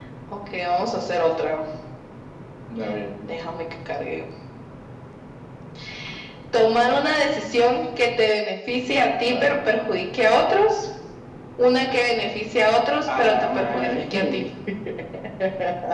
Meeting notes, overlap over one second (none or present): present